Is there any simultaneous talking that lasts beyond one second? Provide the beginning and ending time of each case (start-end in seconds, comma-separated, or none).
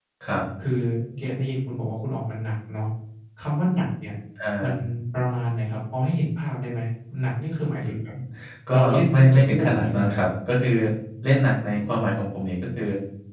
8.7-10.2